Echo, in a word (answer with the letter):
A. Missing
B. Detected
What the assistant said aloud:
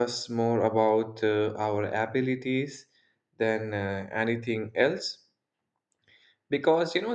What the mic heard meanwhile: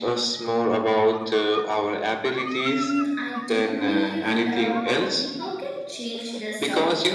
B